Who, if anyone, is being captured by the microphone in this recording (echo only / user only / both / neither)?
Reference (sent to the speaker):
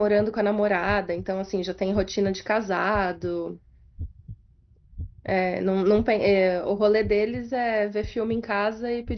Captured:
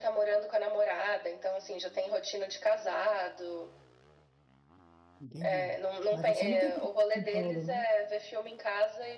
both